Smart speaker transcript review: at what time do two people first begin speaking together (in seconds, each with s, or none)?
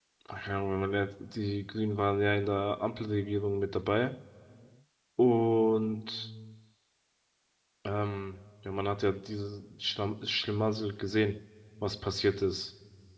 none